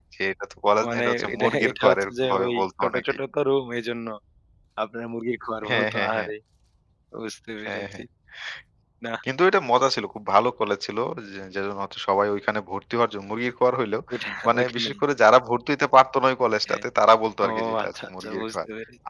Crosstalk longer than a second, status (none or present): present